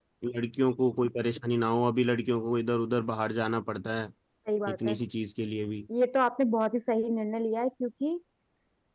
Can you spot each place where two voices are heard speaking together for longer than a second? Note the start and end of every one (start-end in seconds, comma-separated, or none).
none